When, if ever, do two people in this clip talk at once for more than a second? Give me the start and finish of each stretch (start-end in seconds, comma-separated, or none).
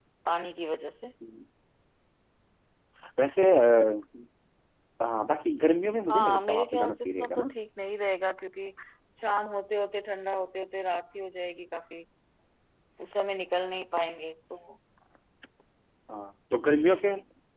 6.1-7.5